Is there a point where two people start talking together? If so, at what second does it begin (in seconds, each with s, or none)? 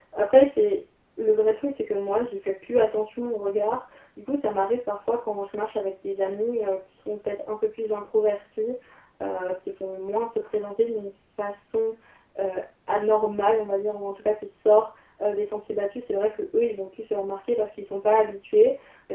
none